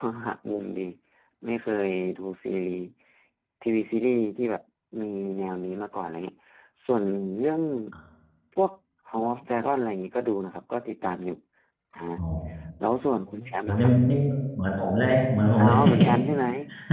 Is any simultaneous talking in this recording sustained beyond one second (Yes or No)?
No